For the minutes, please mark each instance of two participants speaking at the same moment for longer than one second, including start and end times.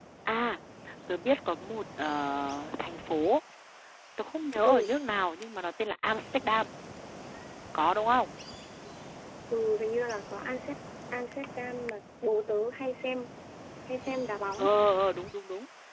none

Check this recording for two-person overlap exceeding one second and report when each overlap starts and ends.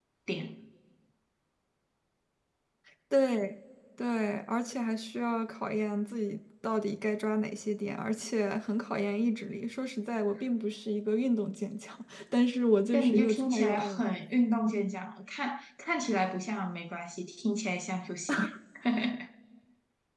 12.9-14.2

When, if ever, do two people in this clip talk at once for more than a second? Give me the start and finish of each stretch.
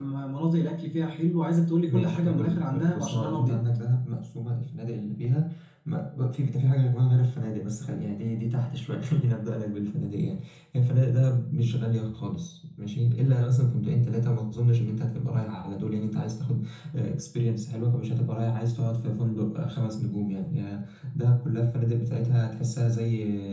1.9-3.6

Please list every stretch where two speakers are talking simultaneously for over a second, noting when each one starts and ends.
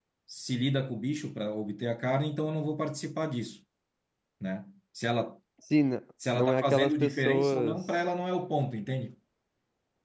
6.3-7.8

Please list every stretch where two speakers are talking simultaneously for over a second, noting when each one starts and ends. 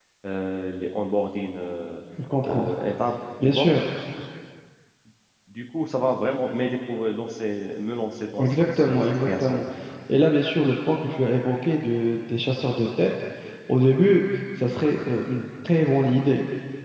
8.4-9.6

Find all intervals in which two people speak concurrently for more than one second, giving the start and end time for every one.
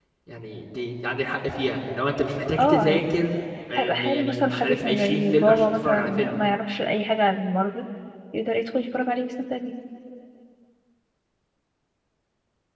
3.8-6.3

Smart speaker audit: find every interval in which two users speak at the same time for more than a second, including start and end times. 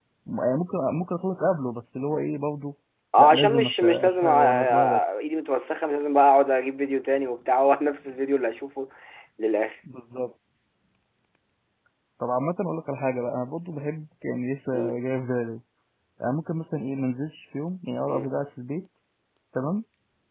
3.2-5.0

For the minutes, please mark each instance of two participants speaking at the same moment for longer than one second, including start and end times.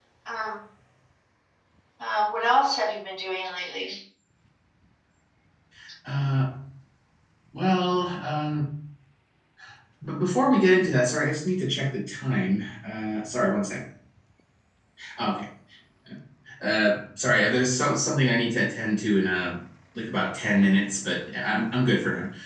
none

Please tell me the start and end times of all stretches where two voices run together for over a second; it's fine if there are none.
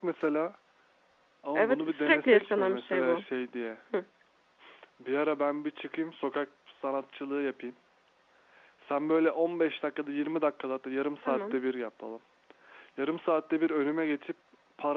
1.6-3.2

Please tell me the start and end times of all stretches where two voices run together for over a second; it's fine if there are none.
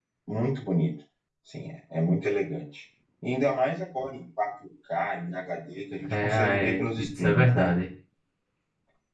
6.1-7.7

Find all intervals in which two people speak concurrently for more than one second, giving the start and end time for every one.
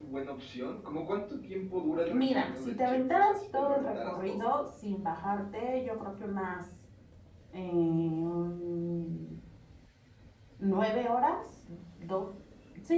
2.1-4.5

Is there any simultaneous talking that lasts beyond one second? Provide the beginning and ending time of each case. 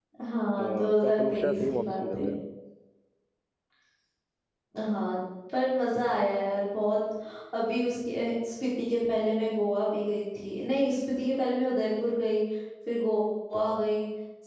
0.6-2.2

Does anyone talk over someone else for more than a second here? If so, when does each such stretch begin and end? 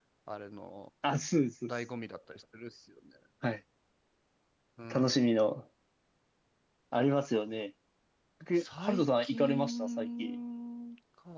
8.6-10.3

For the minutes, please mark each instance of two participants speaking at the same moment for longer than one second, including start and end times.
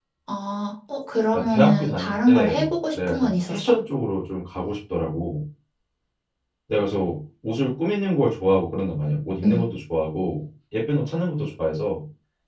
1.3-3.7

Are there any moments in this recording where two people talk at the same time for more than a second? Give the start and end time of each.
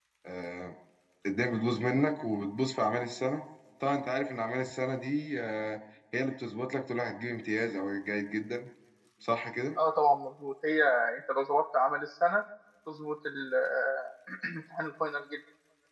none

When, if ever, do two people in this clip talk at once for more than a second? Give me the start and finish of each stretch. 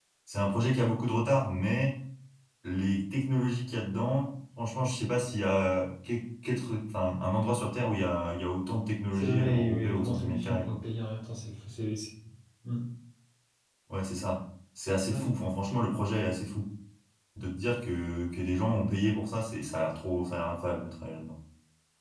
9.1-10.8

